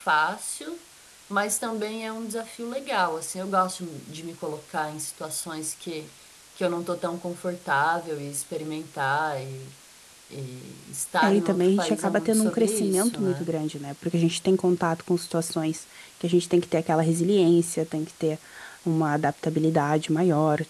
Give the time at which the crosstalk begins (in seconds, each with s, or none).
11.2 s